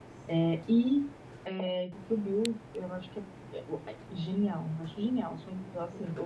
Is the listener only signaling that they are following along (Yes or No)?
Yes